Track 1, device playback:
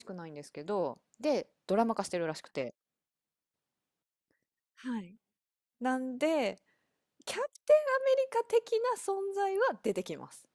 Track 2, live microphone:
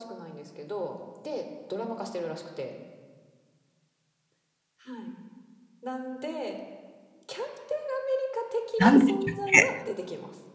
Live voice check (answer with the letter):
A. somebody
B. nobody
A